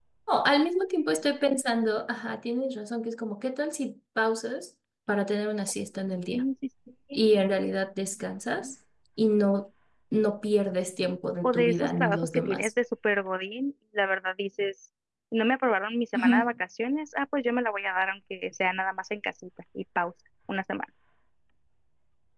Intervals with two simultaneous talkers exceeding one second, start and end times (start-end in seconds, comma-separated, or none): 11.4-12.7